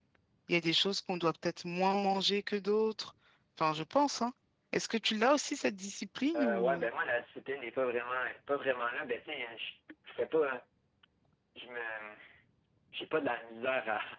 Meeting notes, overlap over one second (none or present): none